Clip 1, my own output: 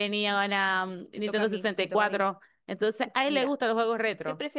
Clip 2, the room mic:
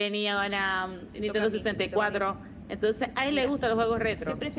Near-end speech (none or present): none